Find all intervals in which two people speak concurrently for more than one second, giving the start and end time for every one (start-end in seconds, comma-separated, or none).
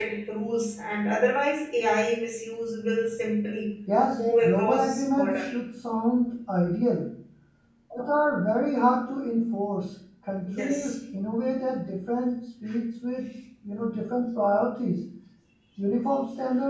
4.2-5.5